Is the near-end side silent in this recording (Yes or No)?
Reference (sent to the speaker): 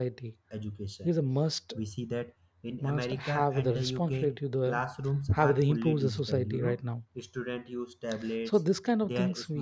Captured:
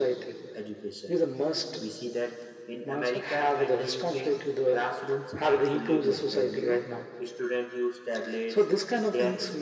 Yes